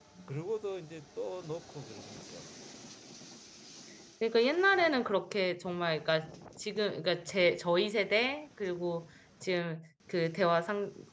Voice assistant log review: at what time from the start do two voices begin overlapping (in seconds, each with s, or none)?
none